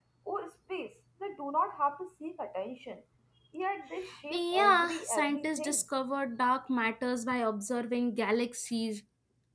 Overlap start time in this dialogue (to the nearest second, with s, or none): 4 s